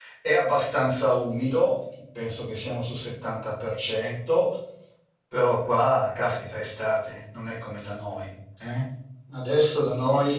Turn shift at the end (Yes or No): No